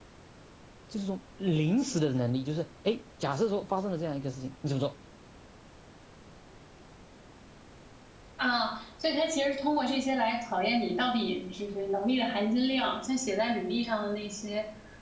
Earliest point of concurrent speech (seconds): none

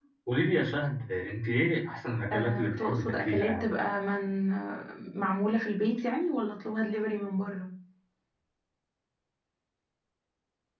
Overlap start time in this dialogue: 2.3 s

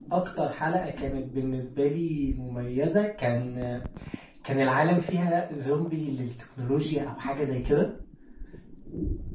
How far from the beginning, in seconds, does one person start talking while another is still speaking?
none

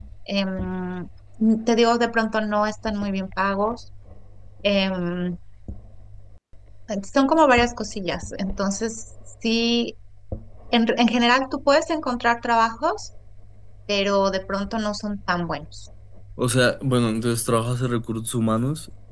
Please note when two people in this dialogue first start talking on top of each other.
none

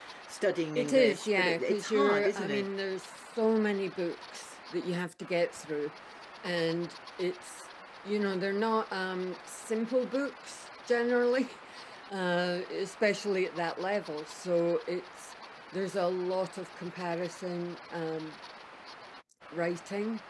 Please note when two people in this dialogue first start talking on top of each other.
0.8 s

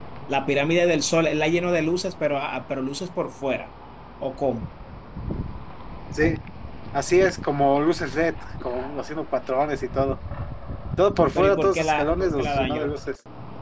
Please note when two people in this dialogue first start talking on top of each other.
11.3 s

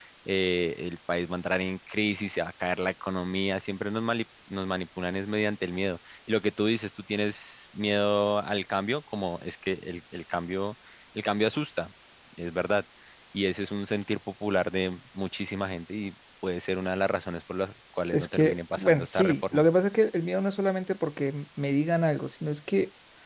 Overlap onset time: 18.1 s

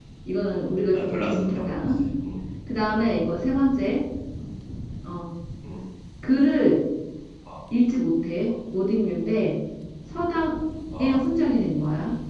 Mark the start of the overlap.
0.5 s

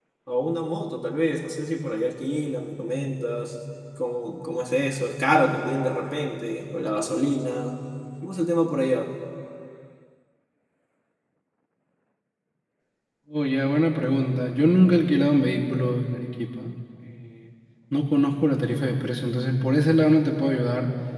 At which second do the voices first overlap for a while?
none

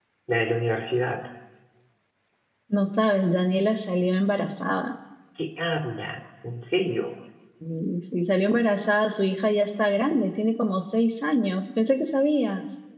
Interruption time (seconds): none

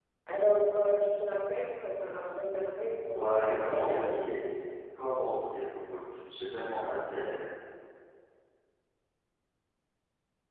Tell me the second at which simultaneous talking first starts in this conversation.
3.1 s

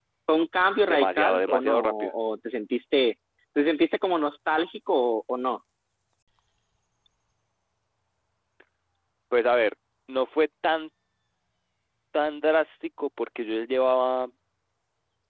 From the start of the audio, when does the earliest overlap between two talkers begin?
0.9 s

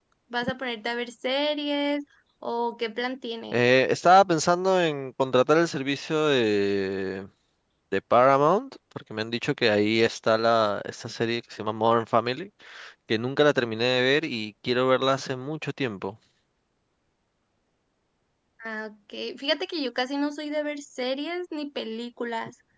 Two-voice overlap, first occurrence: none

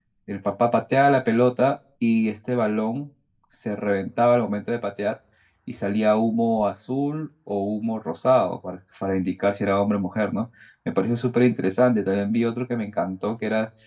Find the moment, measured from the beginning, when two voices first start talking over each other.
none

